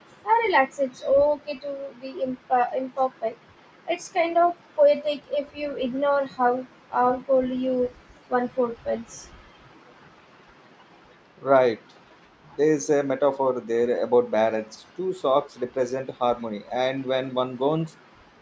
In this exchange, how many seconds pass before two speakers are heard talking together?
none

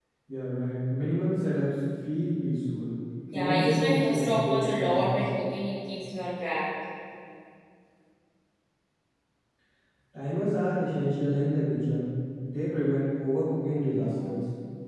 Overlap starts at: 3 s

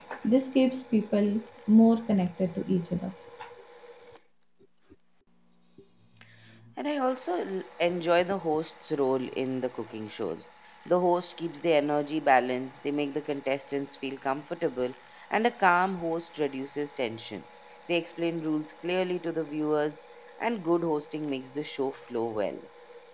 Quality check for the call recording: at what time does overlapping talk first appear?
none

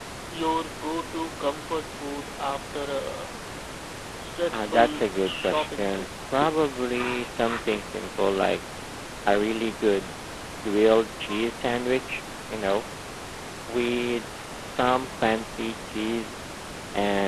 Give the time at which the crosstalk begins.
5 s

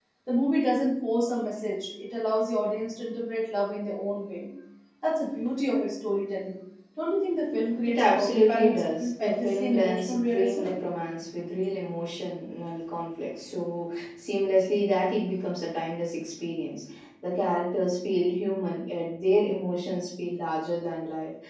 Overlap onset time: 8 s

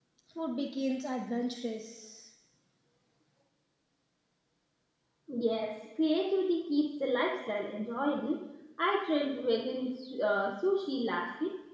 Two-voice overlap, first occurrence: none

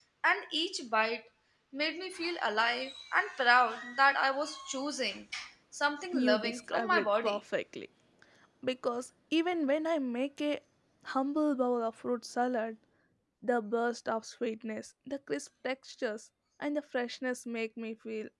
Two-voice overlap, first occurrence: 6 s

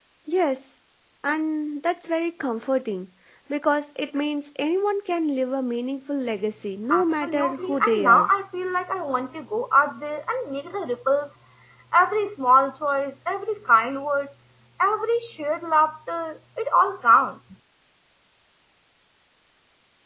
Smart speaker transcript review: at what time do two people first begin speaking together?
7 s

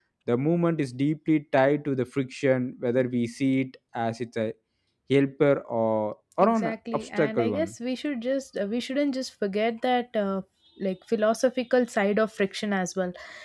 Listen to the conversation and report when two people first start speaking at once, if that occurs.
6 s

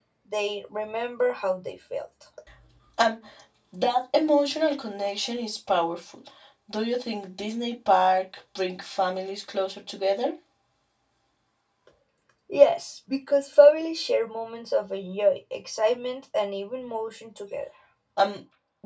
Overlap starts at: none

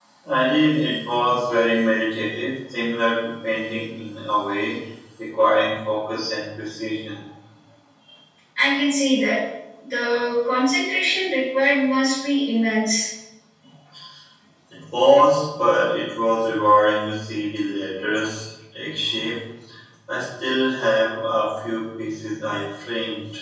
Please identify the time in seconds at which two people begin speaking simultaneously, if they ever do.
none

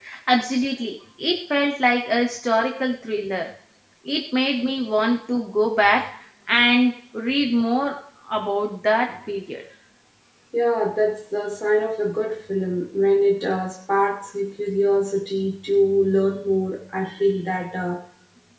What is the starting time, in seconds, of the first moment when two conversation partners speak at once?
none

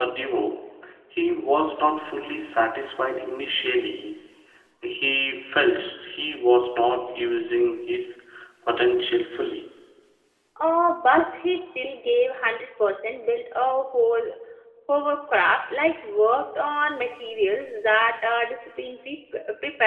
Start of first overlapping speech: none

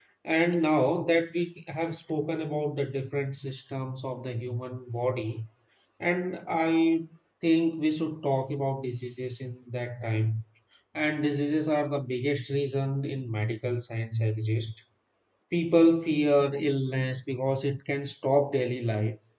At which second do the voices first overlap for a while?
none

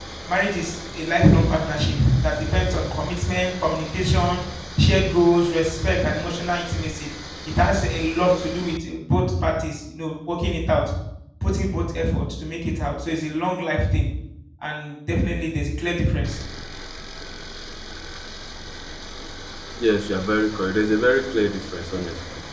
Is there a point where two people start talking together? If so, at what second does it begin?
none

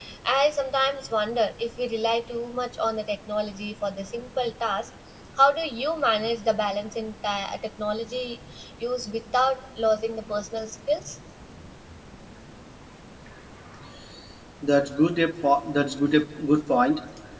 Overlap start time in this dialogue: none

